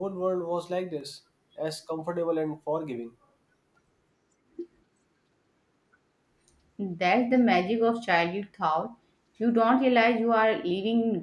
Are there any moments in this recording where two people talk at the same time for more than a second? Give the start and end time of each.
none

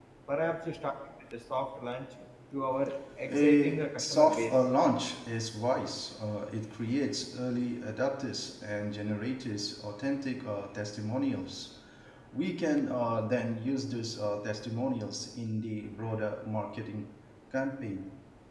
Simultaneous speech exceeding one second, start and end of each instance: 3.3-4.5

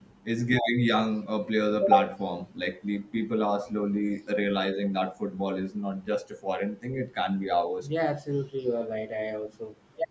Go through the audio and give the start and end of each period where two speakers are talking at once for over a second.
none

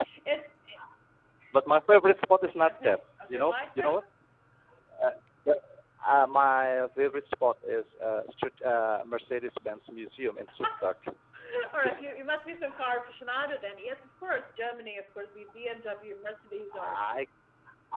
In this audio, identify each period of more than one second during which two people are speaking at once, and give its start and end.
2.7-4.0

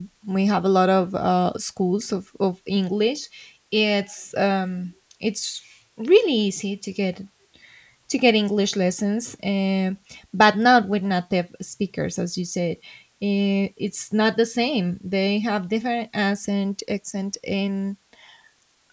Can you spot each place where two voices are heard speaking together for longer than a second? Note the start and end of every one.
none

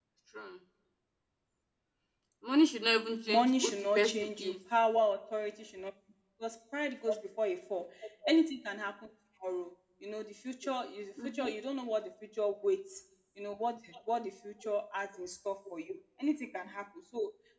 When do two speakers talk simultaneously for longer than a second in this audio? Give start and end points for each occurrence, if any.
3.3-4.6

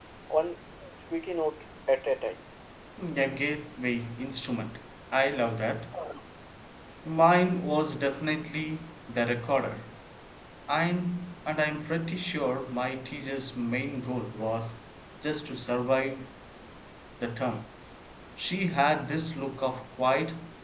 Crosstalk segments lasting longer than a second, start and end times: none

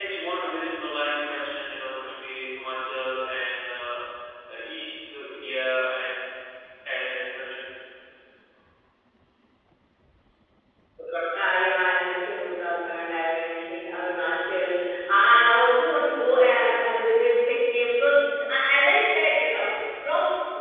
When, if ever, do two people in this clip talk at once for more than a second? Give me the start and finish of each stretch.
none

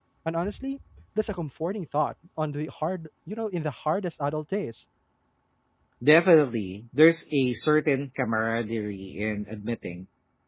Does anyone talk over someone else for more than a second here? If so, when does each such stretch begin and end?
none

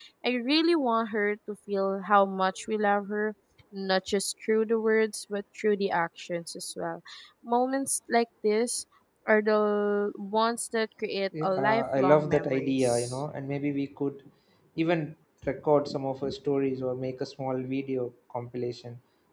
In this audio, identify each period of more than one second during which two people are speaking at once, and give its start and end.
11.4-13.2

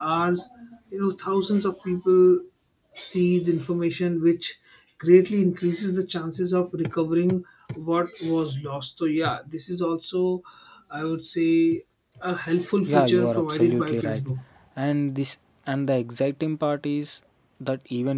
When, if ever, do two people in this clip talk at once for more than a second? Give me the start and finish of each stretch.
12.8-14.2

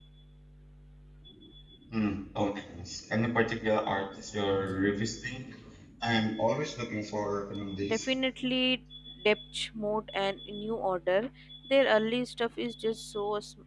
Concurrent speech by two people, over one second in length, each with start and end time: none

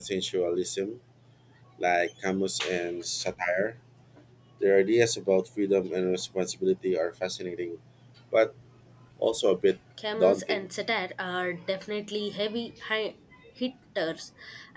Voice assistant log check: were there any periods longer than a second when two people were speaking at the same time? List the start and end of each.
none

